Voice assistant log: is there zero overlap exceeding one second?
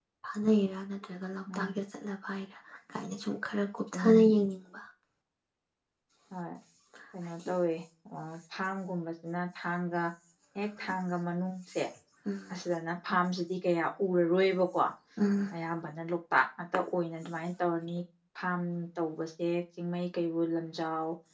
Yes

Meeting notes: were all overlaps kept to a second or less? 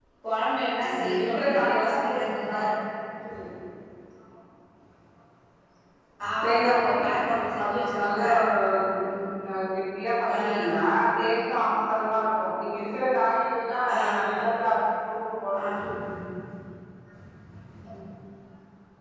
No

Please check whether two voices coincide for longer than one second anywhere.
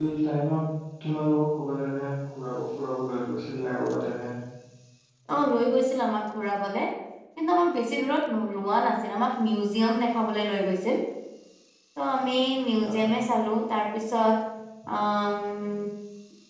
No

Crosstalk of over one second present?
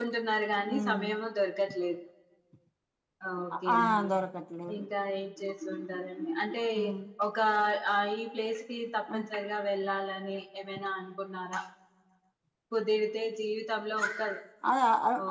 No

